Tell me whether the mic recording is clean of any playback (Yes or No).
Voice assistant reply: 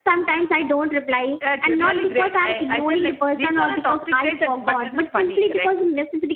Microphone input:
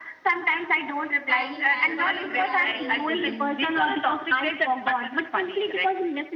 No